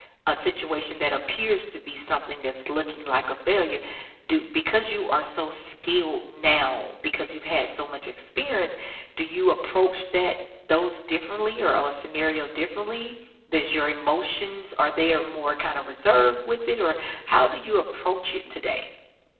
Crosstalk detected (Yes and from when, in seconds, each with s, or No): No